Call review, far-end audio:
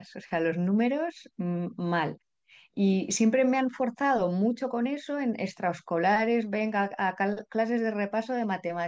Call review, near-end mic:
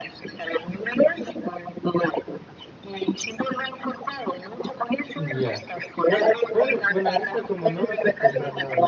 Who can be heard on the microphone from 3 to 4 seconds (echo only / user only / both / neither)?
echo only